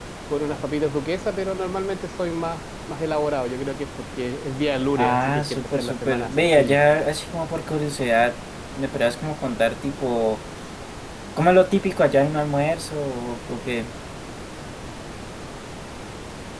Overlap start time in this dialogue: 5.0 s

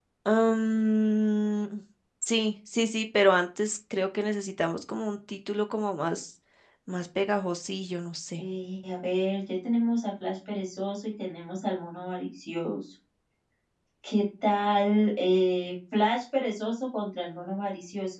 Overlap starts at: none

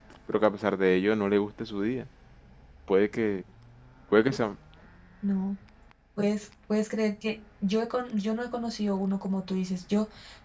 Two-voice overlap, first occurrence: none

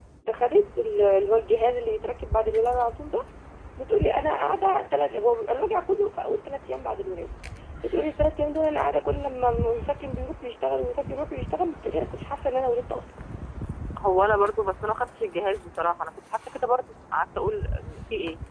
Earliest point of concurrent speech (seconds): none

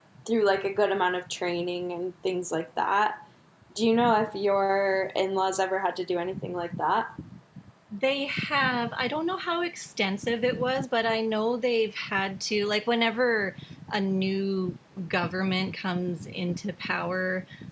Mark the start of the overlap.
none

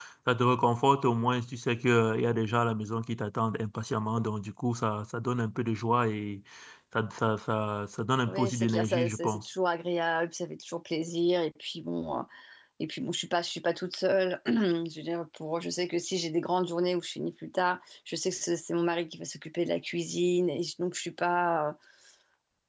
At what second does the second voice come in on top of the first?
8.3 s

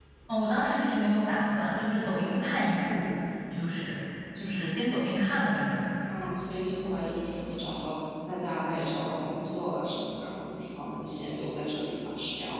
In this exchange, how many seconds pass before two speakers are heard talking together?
none

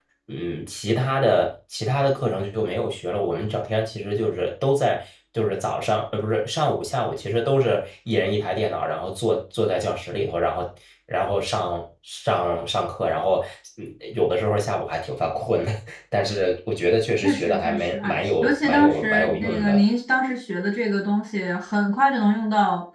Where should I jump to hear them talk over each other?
17.2 s

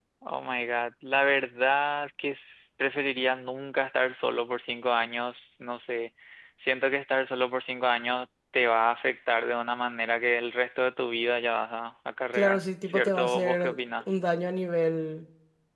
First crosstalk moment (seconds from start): 12.3 s

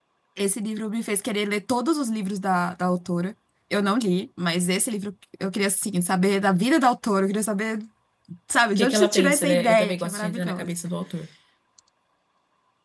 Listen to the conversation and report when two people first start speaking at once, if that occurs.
8.8 s

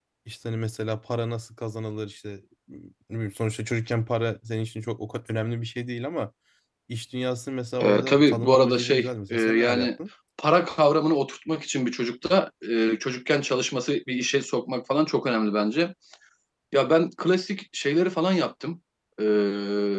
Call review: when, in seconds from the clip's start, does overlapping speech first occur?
7.8 s

